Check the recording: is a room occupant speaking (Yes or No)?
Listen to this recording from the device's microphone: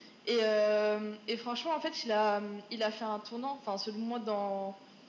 No